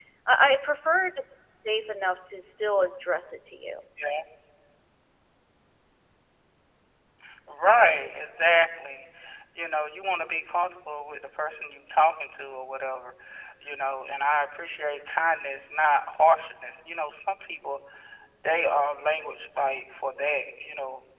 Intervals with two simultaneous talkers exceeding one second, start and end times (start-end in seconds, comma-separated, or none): none